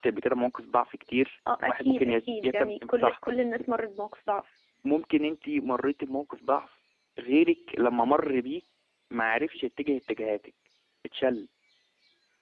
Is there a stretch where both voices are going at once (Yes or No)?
Yes